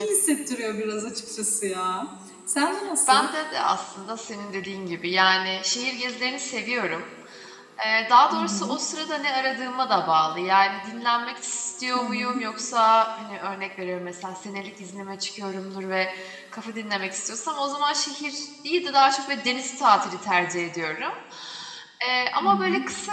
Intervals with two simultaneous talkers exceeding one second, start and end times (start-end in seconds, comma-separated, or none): none